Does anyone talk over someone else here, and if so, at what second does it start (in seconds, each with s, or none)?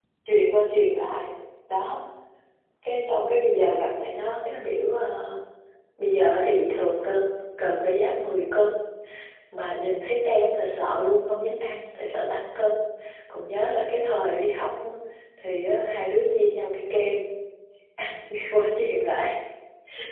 none